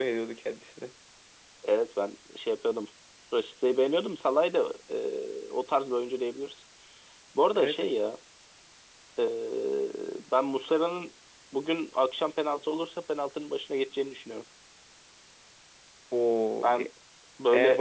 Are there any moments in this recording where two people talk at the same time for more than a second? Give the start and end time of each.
none

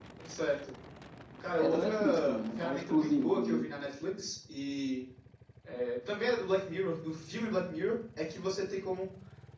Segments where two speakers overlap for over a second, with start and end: 1.6-3.7

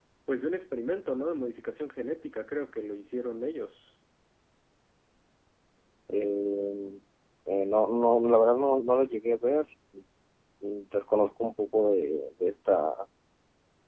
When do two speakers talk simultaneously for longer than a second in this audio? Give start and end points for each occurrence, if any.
none

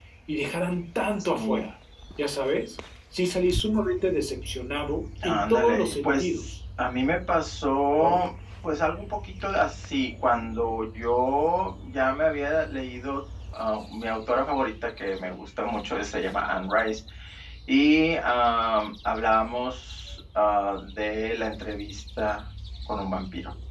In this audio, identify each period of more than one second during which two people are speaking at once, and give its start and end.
5.2-6.4

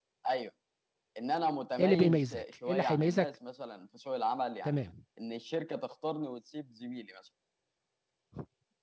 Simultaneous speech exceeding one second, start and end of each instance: 1.8-3.3

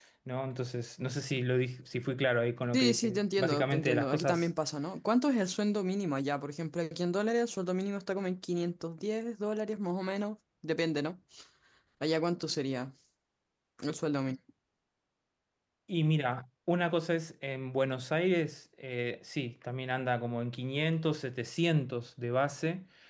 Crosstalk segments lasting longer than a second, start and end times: 2.7-4.5

